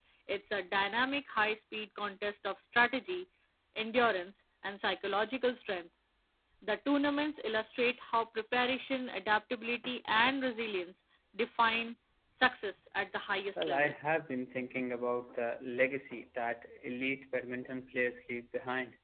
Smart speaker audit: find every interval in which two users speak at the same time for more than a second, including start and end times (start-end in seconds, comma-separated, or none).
none